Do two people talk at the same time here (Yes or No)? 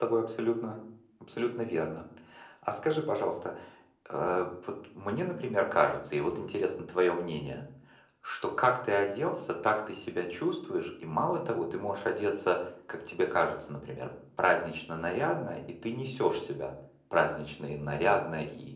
No